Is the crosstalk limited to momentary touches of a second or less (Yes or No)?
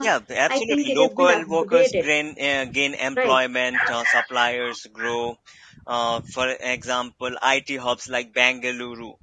No